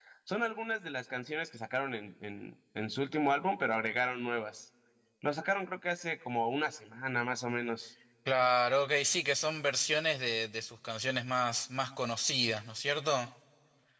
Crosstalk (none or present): none